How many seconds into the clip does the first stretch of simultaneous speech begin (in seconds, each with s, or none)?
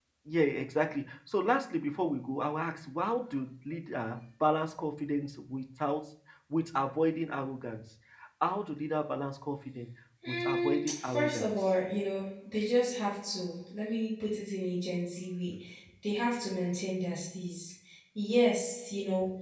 10.2 s